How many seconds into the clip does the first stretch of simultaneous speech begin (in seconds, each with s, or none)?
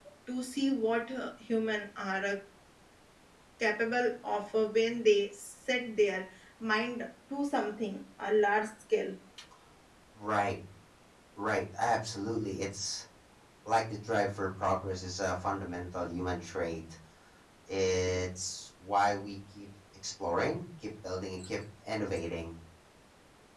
none